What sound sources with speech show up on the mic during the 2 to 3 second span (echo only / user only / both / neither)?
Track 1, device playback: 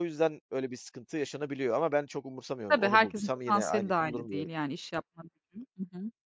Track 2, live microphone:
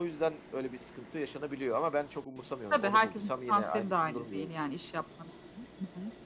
echo only